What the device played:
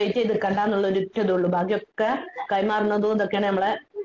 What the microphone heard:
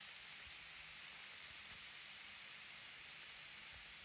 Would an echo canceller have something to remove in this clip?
No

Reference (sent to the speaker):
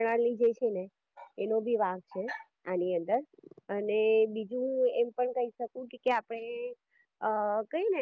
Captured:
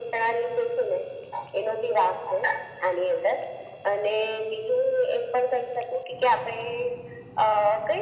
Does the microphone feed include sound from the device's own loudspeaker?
Yes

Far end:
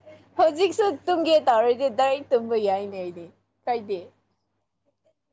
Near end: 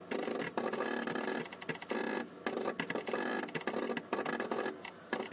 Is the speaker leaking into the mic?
No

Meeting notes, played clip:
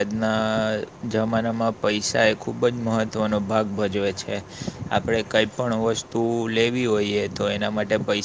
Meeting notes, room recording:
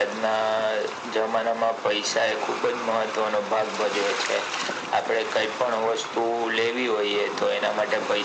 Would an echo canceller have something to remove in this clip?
Yes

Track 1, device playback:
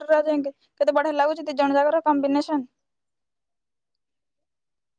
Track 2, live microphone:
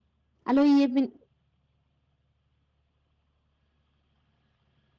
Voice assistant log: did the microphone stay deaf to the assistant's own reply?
Yes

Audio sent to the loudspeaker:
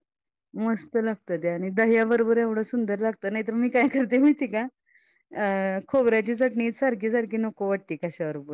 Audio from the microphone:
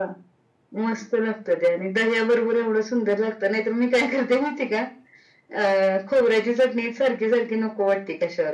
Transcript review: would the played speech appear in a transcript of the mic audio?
Yes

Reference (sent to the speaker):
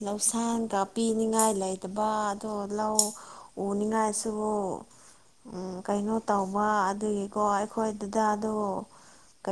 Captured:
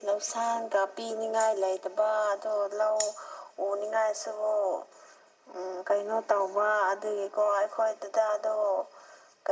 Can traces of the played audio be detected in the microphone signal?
Yes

